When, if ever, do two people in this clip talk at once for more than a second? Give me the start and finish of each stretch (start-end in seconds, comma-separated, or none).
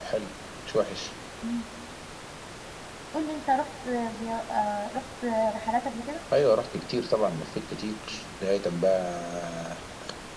none